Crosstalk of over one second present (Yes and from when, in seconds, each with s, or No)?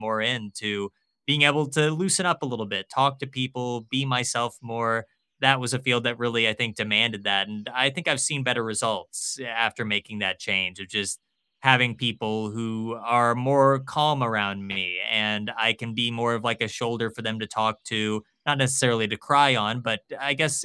No